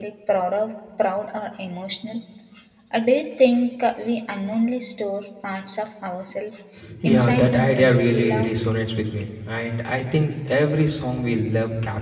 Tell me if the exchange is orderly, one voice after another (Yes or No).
No